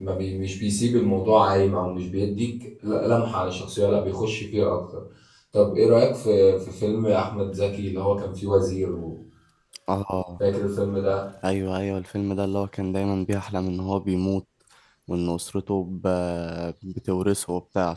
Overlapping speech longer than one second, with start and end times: none

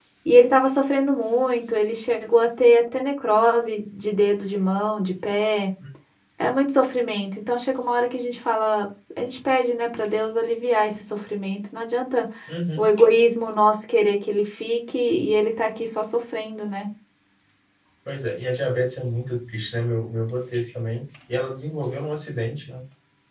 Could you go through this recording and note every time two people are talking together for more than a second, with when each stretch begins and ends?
none

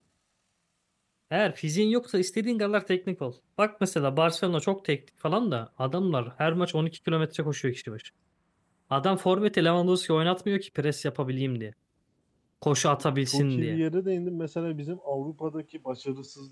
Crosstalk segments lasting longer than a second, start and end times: none

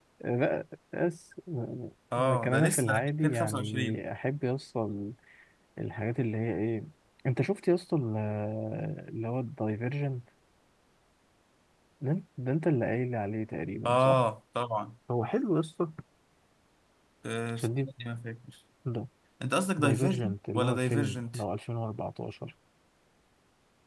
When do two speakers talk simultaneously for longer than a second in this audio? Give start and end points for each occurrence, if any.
2.1-4.0, 19.8-21.2

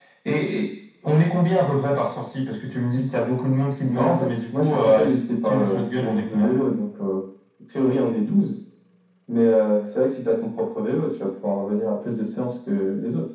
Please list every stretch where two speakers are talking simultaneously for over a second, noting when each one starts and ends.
3.9-6.5

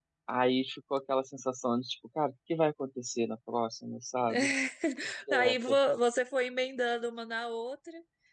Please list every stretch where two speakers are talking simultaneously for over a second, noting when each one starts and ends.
none

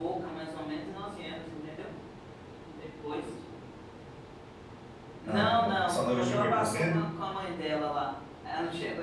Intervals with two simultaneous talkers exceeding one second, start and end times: 5.2-7.0

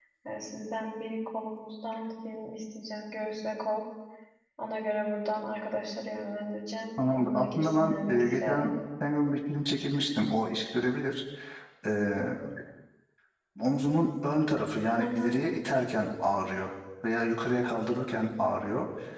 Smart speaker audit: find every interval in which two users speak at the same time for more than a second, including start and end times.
7.1-8.7

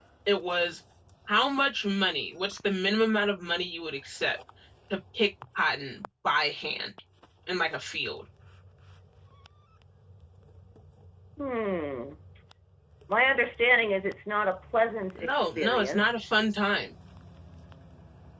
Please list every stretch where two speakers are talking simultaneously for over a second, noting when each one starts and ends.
15.2-16.4

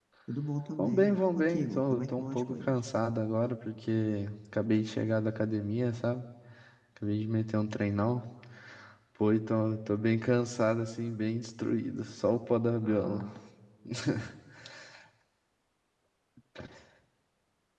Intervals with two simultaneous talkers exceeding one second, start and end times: 0.8-2.8

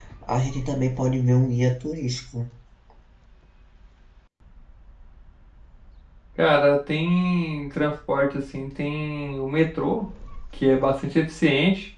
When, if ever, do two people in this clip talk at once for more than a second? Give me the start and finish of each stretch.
none

